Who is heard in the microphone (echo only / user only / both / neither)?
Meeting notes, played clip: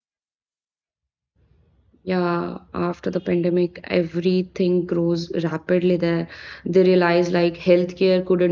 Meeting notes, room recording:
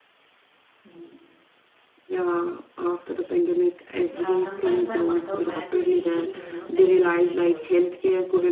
both